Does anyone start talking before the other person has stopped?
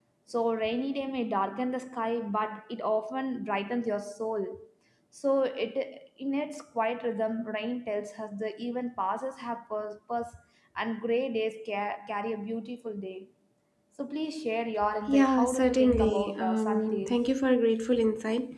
Yes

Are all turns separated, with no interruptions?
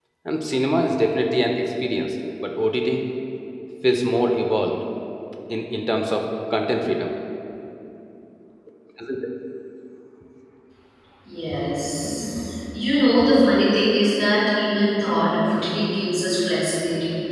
Yes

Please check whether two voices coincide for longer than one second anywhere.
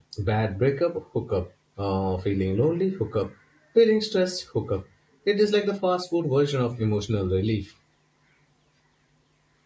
No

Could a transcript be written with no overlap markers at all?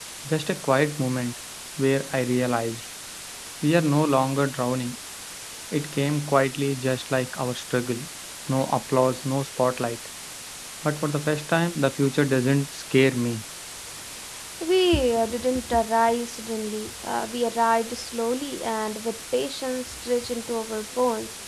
Yes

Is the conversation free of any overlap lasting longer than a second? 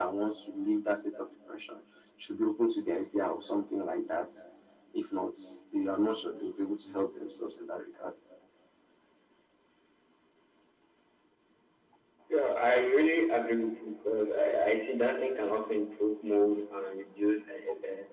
Yes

